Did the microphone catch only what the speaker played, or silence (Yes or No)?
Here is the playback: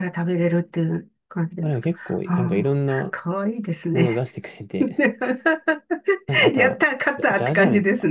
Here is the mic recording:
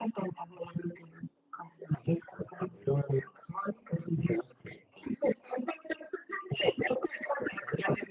Yes